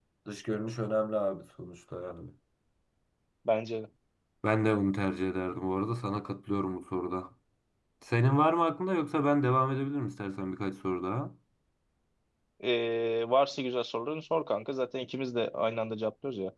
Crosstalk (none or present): none